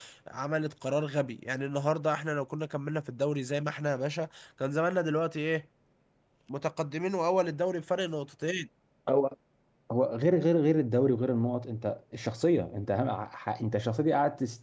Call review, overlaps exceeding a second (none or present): none